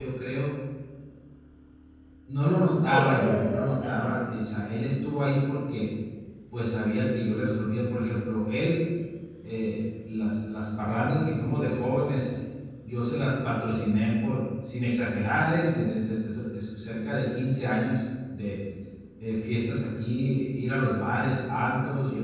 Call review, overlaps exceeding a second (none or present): present